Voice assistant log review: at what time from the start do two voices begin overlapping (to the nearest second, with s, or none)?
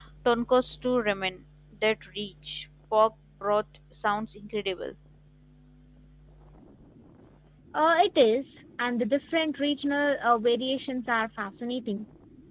none